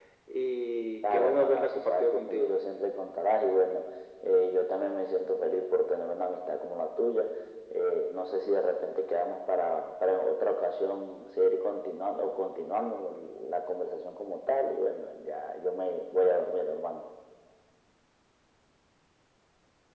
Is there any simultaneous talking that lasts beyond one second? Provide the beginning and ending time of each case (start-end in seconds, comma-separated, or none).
1.0-2.5